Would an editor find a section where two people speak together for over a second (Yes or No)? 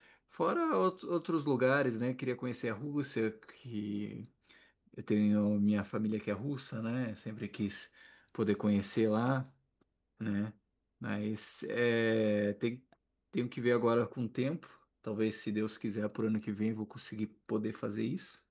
No